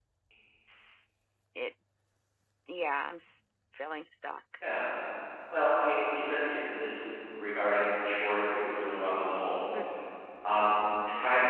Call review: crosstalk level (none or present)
none